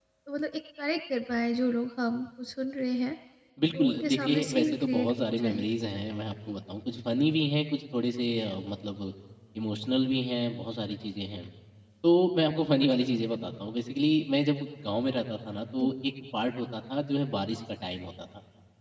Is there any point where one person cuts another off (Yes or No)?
Yes